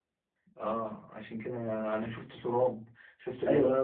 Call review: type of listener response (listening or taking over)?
taking over